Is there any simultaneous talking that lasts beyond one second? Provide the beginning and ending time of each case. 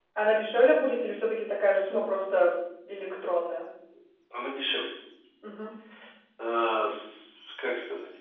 none

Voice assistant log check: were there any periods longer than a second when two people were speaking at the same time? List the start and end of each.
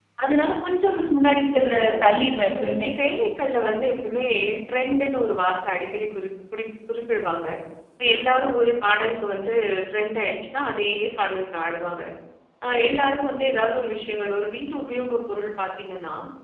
none

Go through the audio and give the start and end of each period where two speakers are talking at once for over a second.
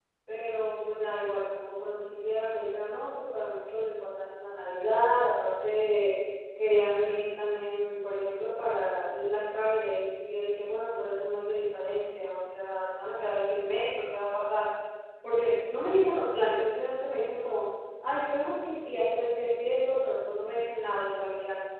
none

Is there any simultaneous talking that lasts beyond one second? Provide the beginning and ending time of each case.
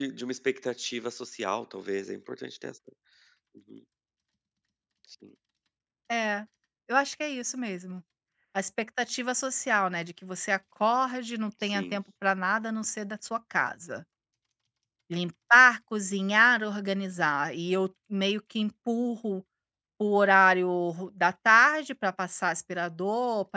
none

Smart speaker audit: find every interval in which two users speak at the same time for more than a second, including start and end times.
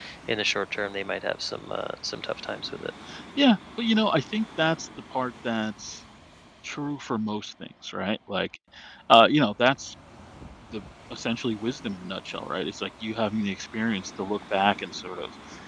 none

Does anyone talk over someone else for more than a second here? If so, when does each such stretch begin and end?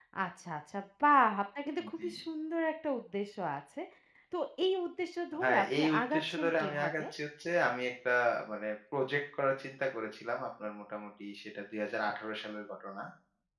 5.4-7.0

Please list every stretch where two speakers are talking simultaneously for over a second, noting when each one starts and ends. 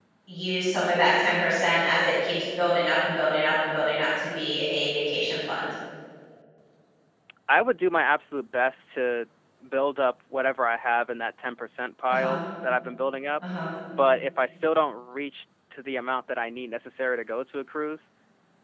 none

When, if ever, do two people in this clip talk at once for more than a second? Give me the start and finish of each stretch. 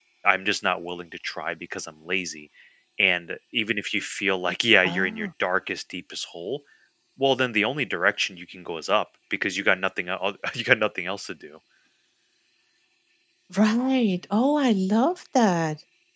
none

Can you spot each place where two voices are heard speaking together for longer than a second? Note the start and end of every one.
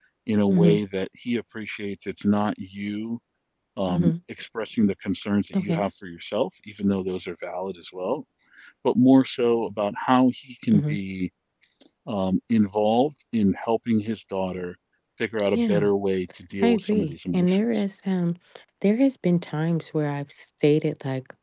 16.6-17.8

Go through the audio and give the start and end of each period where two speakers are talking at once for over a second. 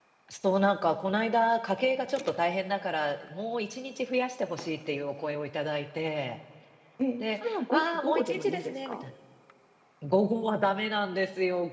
7.2-9.0

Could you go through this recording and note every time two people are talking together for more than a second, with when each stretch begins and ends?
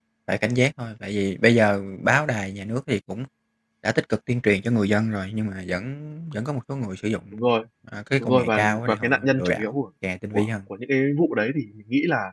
8.2-9.8

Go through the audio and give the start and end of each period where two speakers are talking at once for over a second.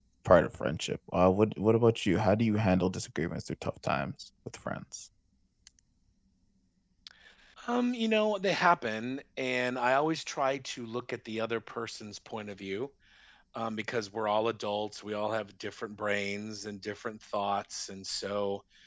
none

